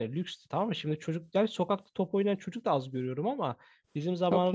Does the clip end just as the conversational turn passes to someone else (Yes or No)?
No